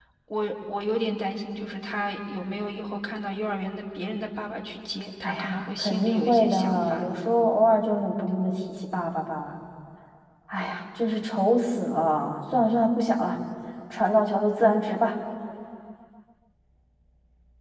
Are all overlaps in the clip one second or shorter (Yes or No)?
No